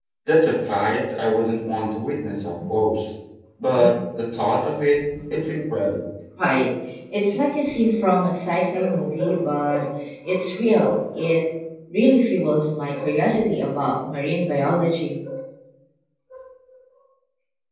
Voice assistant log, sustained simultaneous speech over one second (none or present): none